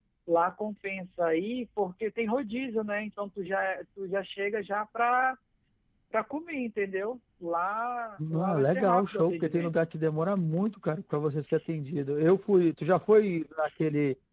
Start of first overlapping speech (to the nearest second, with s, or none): 8 s